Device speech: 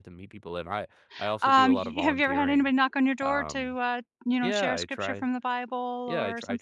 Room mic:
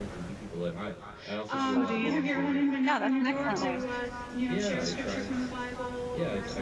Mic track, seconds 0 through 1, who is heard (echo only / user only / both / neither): echo only